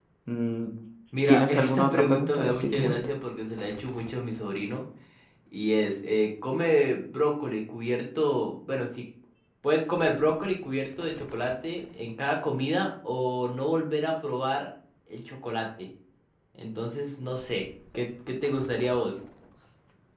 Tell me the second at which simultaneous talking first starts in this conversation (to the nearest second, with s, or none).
1 s